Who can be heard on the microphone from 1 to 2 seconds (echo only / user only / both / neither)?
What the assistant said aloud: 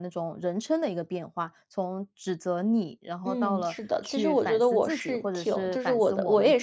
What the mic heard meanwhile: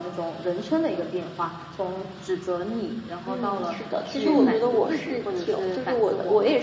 echo only